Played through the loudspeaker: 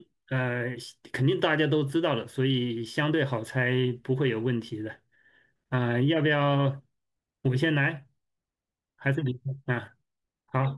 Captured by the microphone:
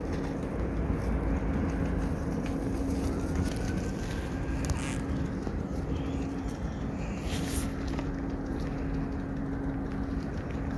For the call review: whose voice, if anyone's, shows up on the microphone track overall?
neither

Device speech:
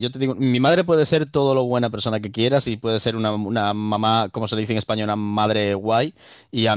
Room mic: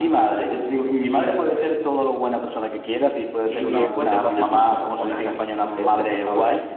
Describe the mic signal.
both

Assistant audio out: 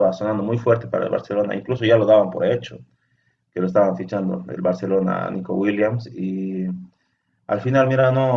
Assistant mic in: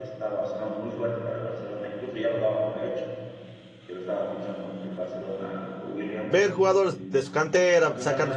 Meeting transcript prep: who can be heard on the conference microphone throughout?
both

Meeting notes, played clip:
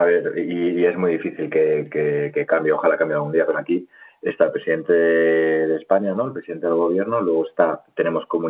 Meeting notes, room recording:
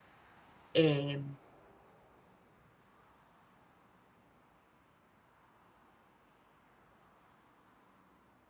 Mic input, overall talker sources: user only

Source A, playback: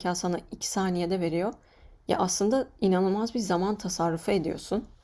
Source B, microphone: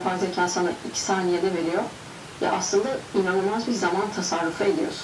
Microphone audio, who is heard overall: echo only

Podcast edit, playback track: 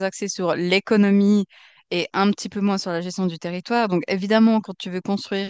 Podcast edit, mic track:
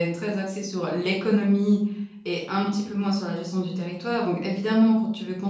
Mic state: echo only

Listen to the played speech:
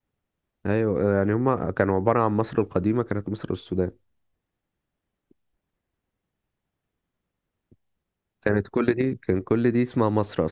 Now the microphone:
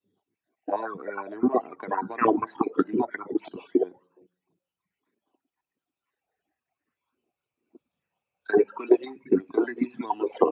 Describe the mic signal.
echo only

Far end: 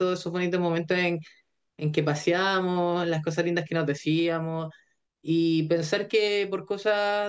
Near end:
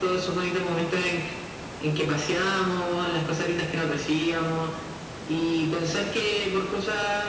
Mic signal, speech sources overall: echo only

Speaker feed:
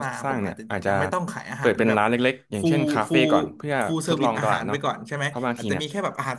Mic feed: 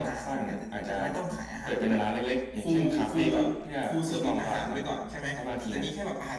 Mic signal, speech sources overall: echo only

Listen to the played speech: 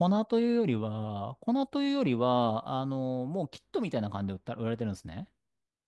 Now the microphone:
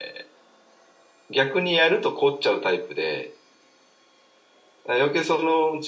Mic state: user only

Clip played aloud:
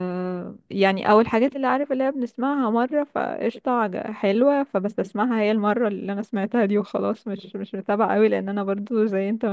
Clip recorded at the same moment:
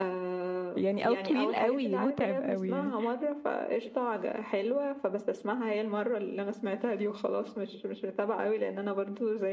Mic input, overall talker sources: both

